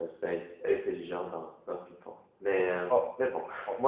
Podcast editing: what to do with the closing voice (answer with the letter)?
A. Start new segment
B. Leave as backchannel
B